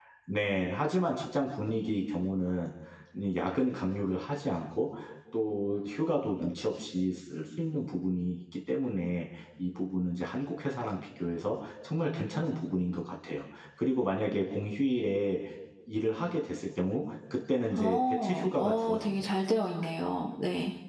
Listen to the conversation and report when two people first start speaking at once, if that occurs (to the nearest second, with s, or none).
18 s